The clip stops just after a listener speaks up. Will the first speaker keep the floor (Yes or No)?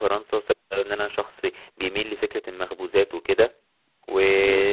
Yes